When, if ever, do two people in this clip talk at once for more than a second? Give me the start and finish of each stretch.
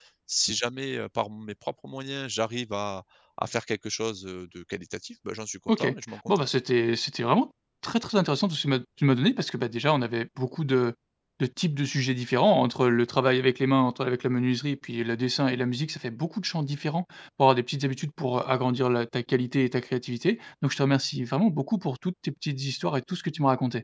none

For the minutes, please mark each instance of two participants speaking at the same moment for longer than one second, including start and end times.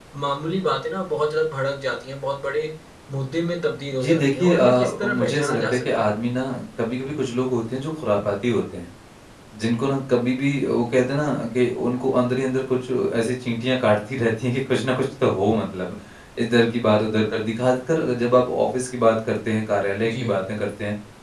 3.9-6.1

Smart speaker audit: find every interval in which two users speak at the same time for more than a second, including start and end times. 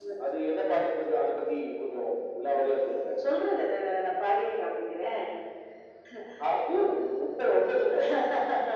none

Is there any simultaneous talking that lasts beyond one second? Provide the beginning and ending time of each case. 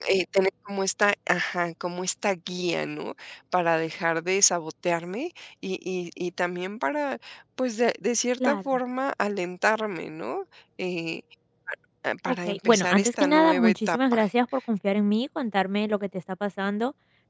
12.3-14.2

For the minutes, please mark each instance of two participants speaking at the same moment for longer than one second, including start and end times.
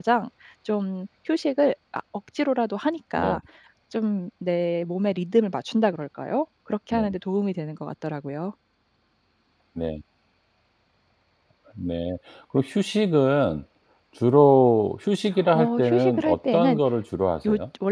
15.5-16.8

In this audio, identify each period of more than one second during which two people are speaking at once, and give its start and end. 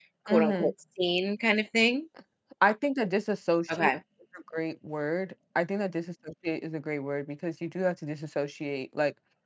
none

